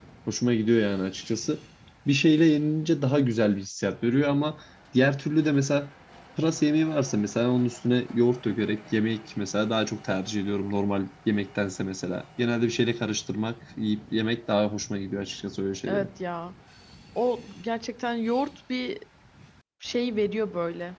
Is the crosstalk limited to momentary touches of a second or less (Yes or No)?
Yes